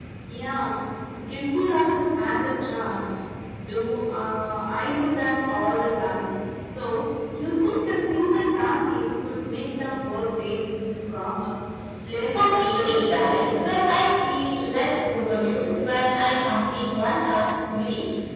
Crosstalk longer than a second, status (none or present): present